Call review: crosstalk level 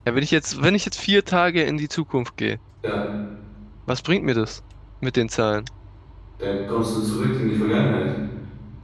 none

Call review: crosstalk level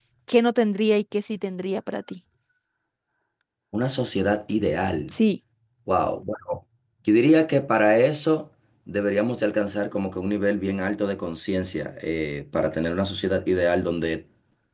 none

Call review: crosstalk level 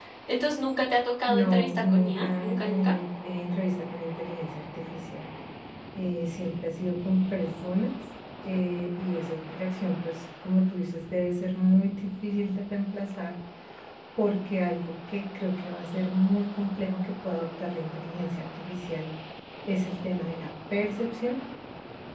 present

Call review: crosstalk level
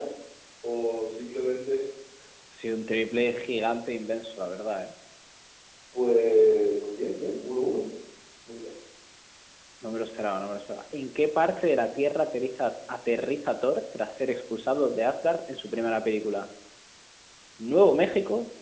none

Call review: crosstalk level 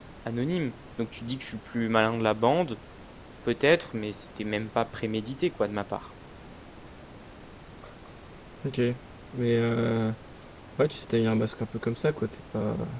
none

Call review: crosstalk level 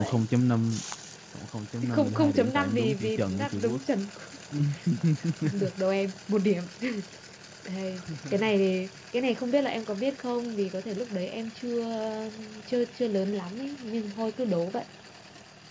present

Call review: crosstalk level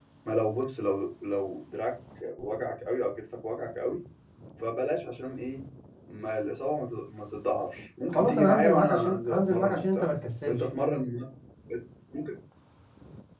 present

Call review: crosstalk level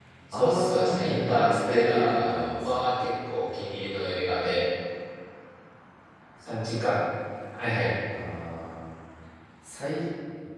present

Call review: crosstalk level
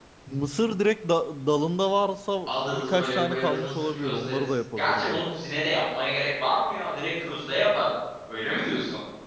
present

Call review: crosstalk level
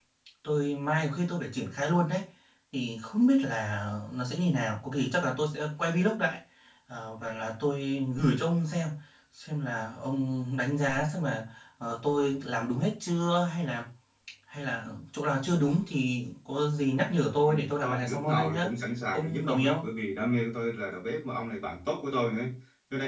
present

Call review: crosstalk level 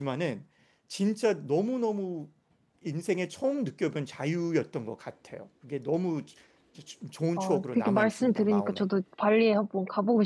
present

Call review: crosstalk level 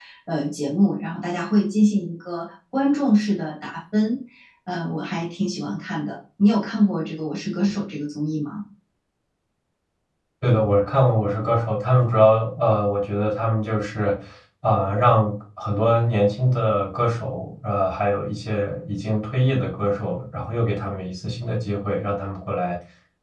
none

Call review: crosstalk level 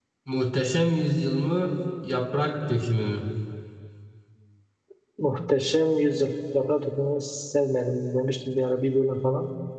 none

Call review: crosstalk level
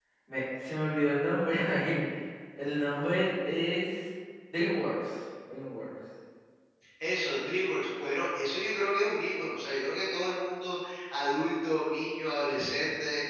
none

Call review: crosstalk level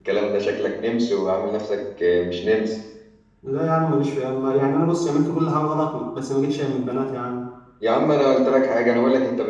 none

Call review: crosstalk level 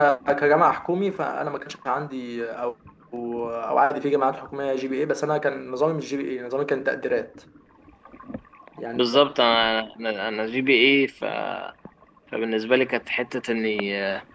none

